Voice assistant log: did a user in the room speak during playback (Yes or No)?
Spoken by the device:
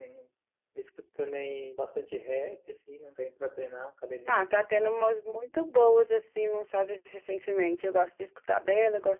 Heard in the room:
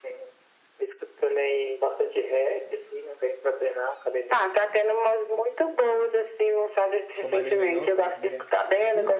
Yes